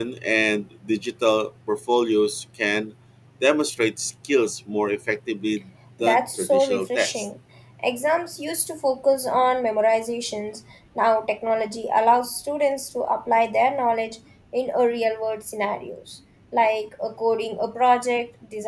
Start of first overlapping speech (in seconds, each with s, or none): 6.0 s